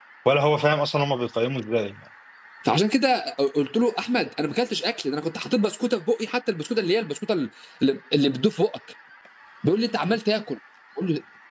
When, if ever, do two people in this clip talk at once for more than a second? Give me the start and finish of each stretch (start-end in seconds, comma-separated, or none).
none